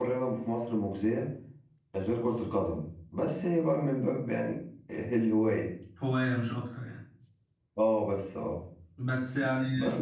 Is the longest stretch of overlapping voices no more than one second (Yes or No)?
Yes